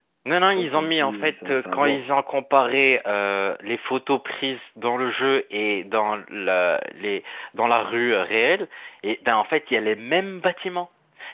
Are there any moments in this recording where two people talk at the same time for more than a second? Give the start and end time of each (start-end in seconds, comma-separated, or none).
0.5-2.0